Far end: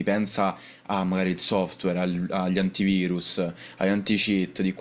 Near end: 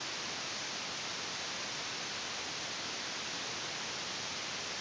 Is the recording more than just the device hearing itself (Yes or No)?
No